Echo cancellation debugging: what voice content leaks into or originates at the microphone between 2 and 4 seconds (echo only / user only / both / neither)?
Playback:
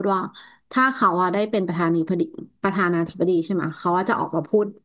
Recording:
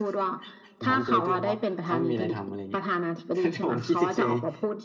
both